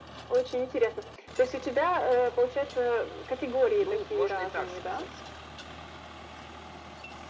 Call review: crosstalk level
present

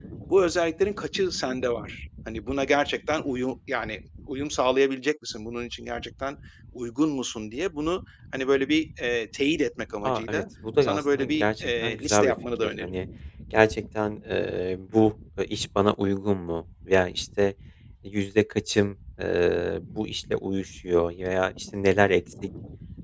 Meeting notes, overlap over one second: present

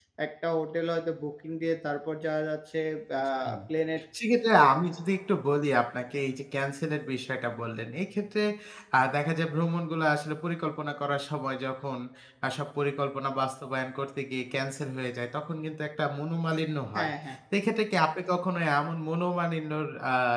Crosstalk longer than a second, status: none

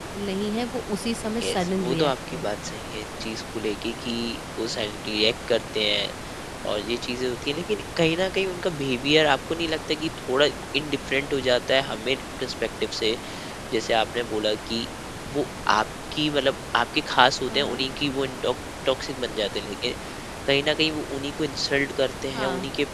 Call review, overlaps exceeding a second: present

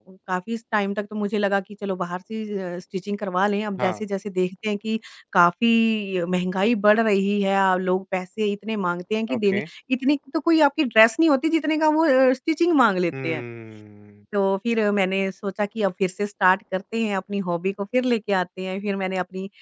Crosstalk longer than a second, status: none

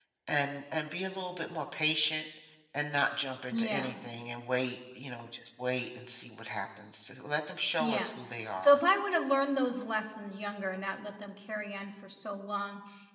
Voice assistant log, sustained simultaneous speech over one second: none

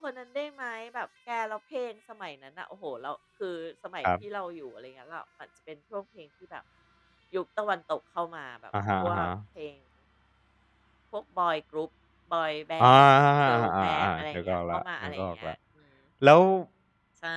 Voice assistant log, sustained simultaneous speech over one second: present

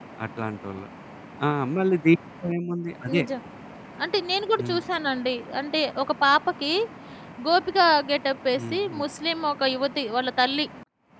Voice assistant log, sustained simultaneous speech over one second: none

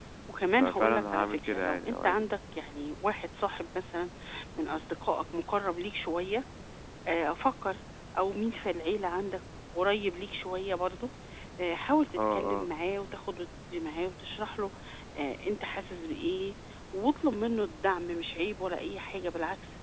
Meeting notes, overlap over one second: present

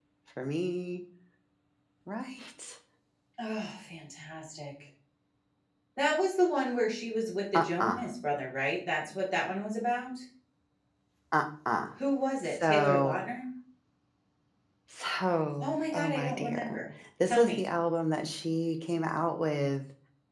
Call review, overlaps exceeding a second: present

